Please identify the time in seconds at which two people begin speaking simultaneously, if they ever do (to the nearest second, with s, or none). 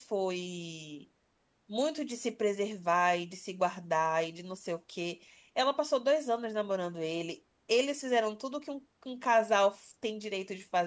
none